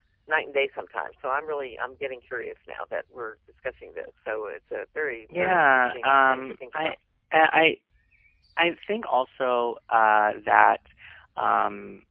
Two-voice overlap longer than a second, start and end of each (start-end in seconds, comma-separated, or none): 5.4-6.9